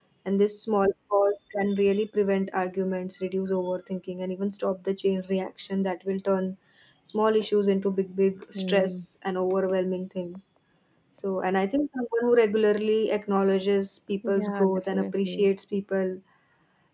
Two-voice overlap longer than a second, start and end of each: 14.3-15.5

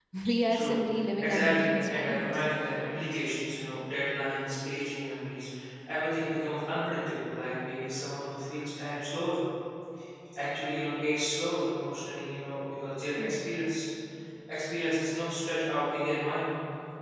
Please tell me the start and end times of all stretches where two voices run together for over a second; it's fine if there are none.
1.2-2.4

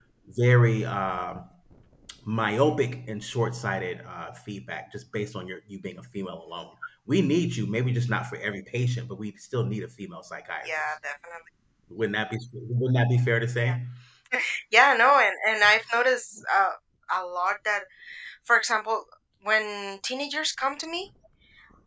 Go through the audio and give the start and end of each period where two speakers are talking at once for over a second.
none

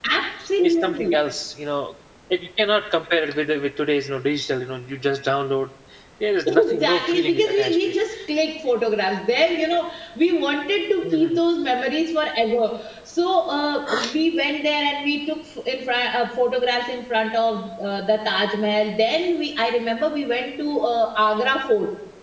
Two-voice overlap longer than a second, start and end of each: 6.5-7.9

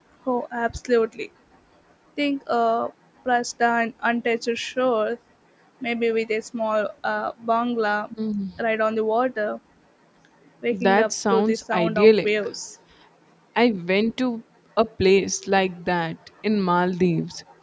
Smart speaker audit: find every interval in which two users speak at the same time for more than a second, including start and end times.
10.7-12.3

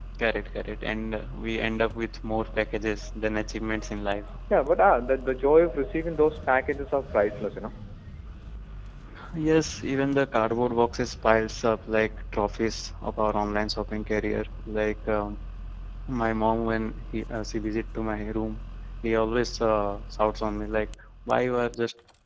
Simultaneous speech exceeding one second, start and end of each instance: none

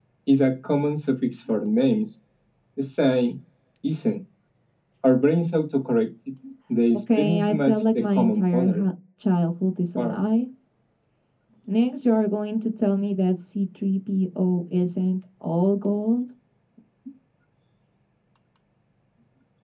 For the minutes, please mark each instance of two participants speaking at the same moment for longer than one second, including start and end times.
7.2-8.8

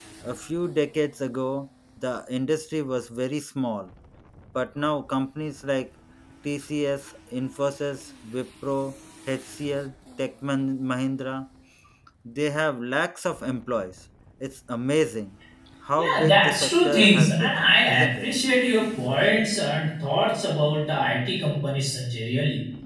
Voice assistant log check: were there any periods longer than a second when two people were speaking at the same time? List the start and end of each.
16.0-18.3

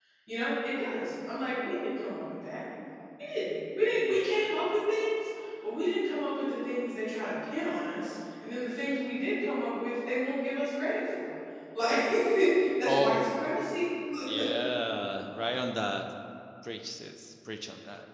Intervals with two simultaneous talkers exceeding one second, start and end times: none

